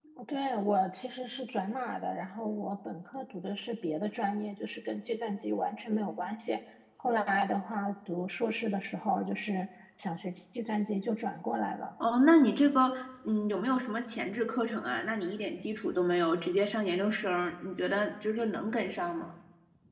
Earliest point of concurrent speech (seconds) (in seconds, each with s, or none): none